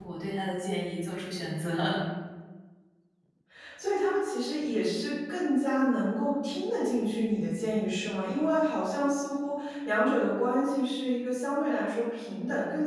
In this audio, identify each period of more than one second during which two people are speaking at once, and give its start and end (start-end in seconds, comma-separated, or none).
none